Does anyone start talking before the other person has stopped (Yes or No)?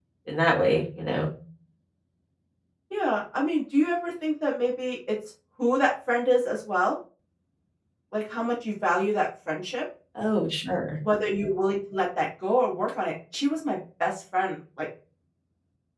No